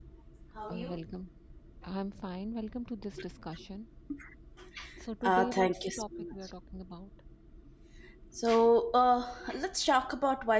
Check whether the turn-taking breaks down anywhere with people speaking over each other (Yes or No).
Yes